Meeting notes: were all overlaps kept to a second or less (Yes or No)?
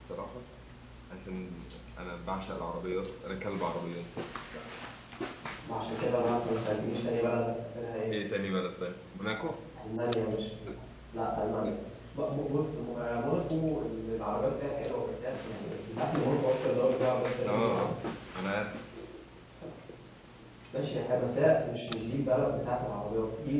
Yes